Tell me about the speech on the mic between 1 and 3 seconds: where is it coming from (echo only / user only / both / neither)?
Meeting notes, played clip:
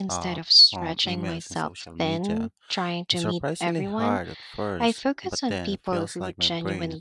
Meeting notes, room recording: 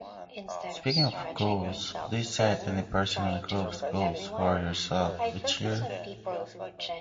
both